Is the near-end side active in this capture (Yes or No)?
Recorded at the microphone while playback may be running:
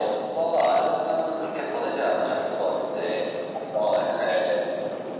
No